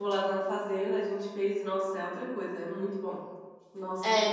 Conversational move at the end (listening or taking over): taking over